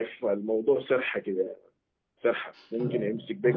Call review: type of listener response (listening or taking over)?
listening